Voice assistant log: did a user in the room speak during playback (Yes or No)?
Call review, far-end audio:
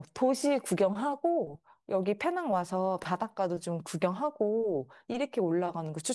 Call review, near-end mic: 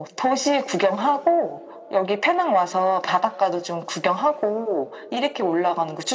No